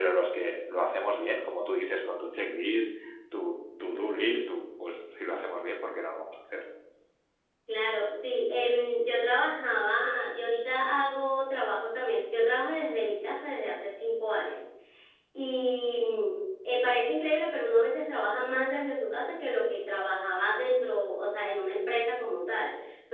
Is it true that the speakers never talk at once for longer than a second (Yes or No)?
Yes